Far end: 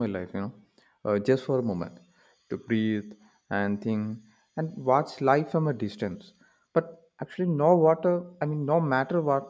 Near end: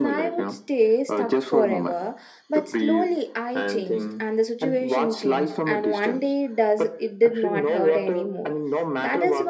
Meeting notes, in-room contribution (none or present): present